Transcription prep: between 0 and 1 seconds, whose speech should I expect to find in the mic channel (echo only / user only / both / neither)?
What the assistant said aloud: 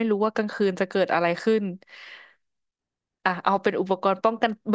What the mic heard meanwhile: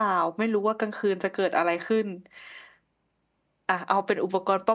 echo only